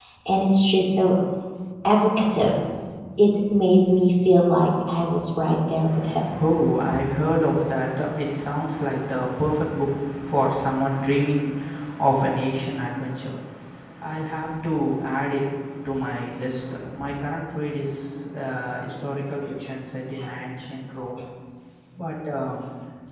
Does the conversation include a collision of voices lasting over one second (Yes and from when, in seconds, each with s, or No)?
No